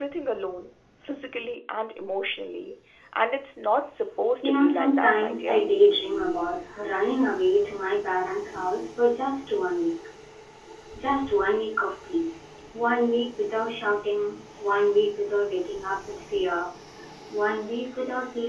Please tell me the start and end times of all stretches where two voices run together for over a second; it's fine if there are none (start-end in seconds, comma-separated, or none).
4.4-5.6